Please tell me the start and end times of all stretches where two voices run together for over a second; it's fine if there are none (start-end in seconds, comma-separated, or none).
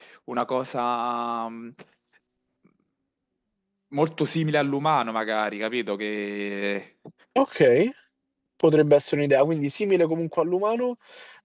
none